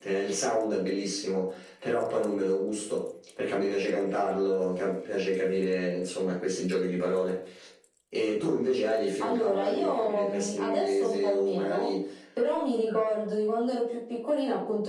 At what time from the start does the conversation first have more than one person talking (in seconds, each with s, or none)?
9.2 s